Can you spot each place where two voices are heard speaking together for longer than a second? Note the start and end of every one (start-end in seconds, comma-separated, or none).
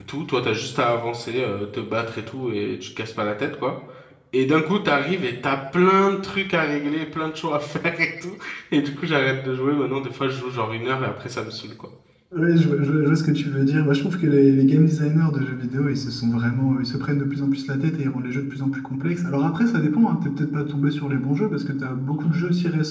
none